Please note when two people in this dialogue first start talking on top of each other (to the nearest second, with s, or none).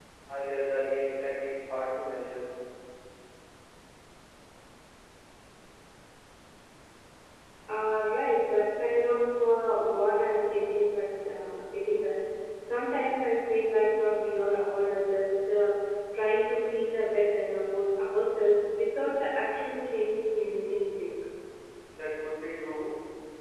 none